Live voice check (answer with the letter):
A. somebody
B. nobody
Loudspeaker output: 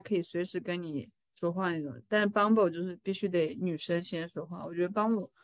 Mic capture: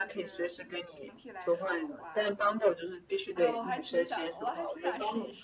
A